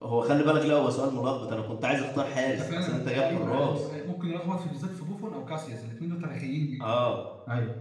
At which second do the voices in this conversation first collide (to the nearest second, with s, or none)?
2 s